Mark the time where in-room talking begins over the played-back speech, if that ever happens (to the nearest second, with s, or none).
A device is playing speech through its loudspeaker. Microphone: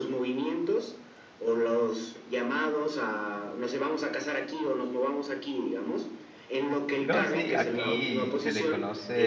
7 s